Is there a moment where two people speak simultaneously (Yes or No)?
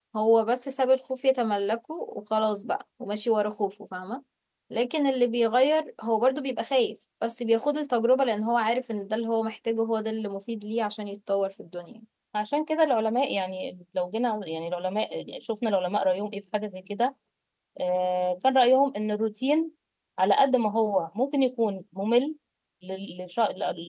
No